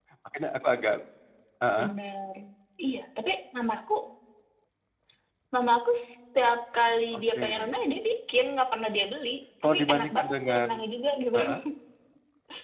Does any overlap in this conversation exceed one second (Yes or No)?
Yes